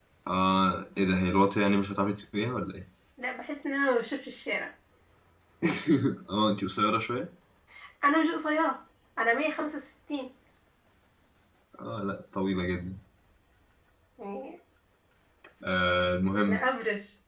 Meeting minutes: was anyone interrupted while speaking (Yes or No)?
No